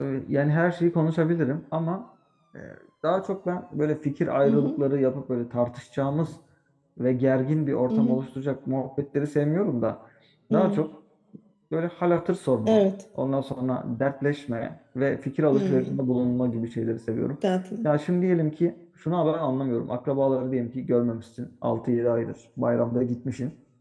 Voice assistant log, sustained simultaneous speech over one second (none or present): none